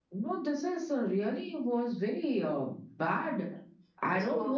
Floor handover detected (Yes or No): No